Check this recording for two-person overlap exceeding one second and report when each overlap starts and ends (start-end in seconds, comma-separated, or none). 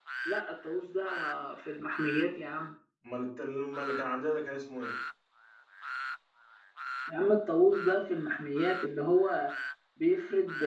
none